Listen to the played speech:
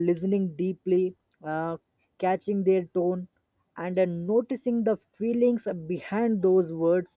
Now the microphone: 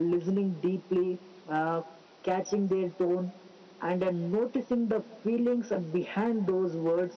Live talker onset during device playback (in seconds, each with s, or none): none